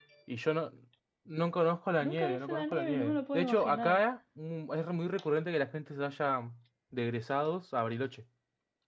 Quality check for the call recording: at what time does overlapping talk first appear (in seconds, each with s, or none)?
2.0 s